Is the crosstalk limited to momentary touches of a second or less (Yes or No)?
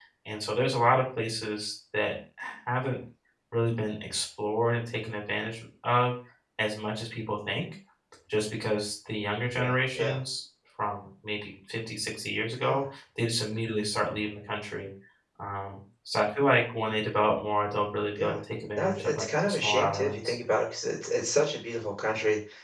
No